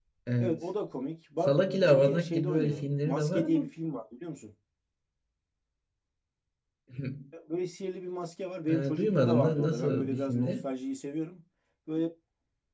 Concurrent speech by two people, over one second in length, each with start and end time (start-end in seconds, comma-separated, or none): 1.5-3.6, 8.7-10.7